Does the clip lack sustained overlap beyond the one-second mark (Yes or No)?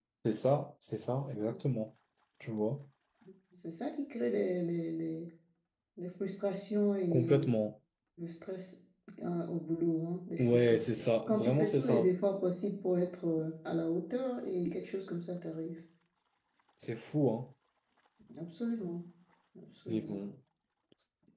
No